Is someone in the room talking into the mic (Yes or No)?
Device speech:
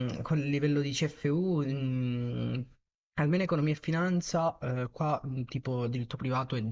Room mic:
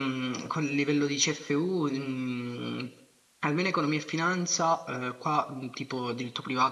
No